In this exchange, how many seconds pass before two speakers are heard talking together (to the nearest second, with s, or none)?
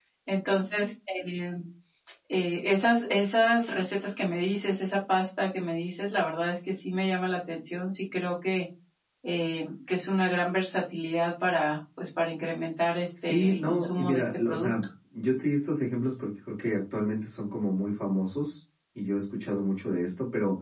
13 s